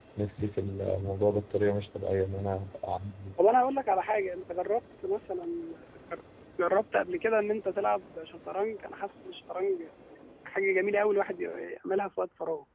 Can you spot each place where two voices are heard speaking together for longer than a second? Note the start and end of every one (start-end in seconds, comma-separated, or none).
none